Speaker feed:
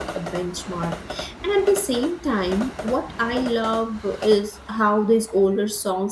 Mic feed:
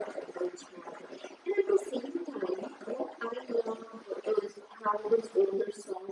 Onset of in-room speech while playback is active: none

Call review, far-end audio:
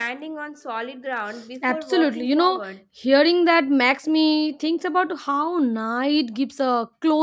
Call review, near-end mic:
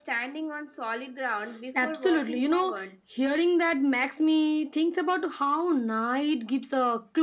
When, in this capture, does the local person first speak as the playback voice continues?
none

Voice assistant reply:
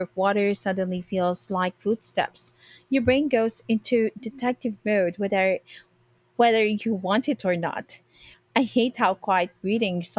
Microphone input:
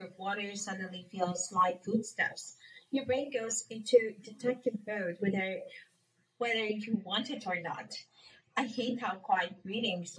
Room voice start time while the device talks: none

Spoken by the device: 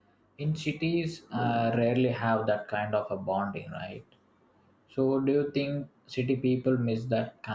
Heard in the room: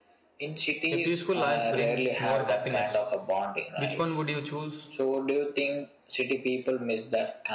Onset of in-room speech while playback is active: 0.9 s

